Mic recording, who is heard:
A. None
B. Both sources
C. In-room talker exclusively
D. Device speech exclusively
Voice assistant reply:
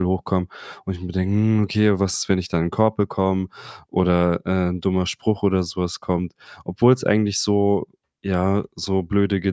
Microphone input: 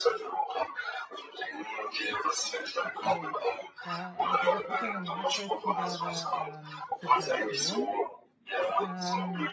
B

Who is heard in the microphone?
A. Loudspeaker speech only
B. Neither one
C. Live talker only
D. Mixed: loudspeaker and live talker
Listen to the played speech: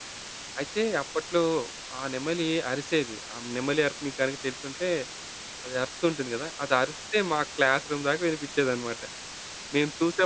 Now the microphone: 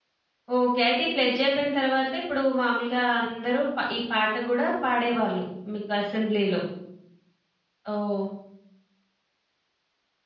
C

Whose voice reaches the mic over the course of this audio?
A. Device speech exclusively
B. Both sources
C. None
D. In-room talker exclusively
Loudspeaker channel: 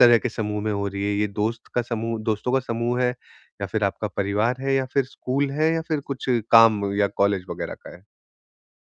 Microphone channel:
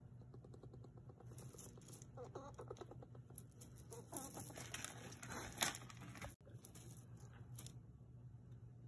C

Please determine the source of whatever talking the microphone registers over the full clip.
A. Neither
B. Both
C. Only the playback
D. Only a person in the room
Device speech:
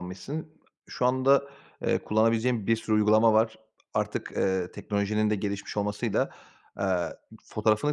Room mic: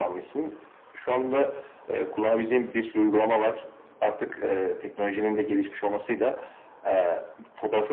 C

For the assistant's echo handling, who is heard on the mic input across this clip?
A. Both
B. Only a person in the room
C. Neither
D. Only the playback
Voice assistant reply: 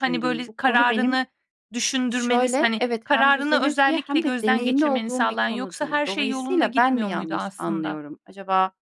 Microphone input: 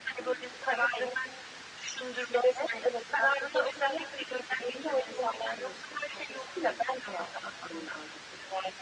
D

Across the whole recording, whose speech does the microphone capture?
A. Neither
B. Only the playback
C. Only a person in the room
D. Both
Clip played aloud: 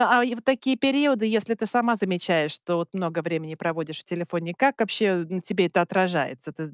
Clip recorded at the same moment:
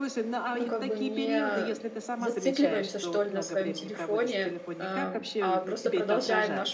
D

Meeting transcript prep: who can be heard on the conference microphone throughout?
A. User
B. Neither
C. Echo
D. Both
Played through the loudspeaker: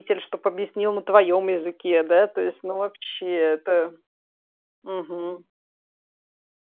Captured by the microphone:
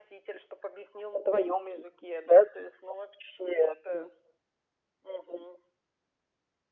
C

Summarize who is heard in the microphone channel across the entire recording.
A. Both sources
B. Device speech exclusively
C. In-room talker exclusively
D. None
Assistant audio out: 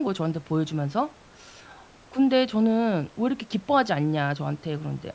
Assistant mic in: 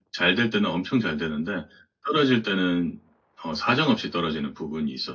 C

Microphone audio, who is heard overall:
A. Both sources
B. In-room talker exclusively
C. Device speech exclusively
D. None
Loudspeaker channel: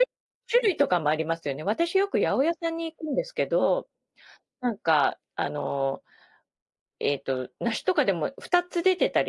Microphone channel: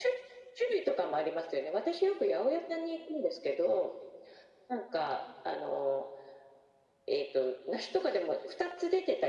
C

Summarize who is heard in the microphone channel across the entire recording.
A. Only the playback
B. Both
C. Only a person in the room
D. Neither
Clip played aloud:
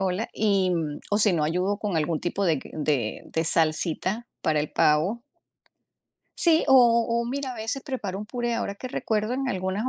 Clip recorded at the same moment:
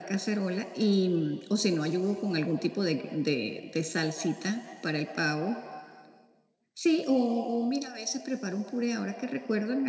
A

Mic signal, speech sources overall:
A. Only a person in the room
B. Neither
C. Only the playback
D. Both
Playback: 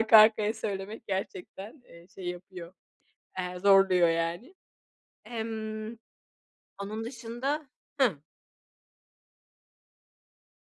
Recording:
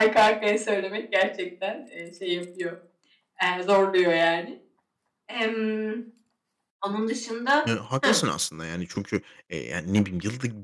D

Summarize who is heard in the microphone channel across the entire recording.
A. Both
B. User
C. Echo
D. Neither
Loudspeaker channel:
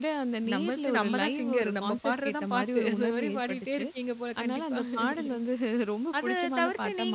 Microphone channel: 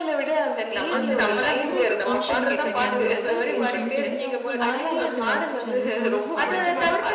A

